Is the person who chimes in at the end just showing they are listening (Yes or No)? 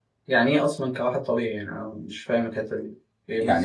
No